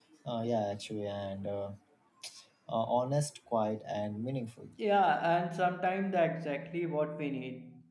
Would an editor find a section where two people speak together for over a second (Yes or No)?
No